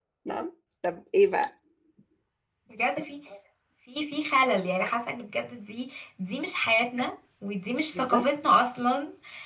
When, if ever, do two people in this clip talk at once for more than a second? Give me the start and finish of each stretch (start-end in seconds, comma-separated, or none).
none